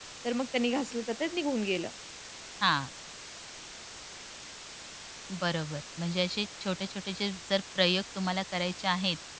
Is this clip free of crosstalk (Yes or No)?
Yes